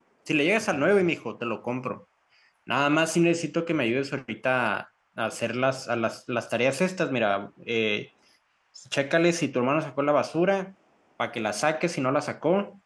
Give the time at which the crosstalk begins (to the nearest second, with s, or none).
none